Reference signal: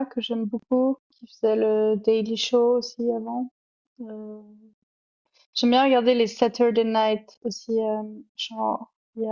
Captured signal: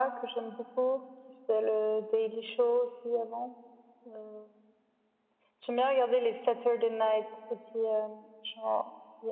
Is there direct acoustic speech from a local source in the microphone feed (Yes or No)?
No